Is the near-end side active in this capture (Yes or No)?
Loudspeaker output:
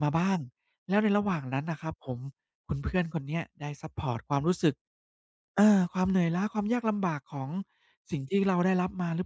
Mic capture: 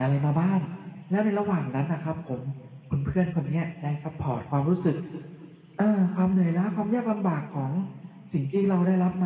No